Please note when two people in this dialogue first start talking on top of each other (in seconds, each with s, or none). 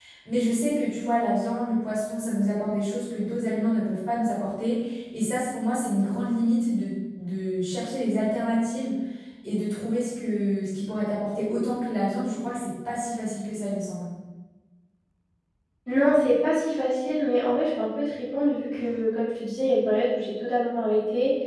none